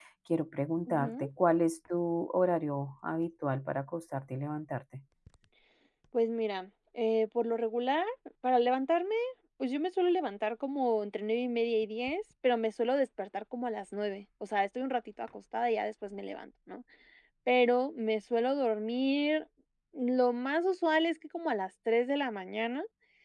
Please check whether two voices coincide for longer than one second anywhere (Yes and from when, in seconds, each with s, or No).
No